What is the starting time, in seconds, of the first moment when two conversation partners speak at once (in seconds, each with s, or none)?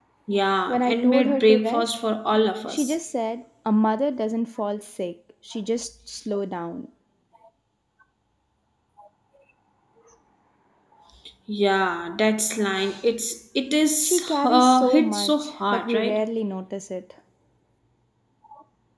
0.7 s